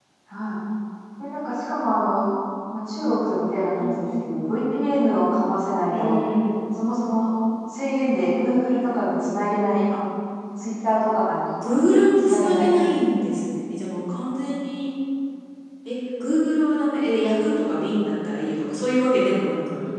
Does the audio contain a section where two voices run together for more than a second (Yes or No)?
No